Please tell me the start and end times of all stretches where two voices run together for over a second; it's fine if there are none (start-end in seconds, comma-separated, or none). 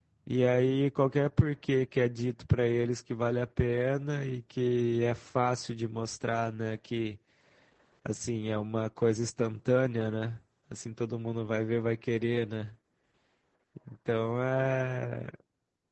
none